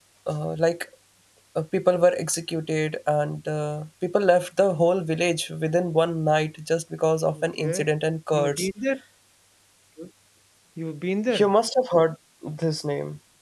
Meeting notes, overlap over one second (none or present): none